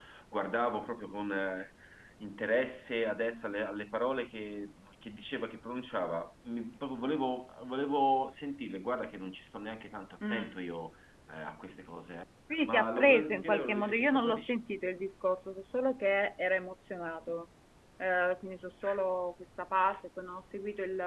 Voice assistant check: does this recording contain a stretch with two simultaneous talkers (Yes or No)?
Yes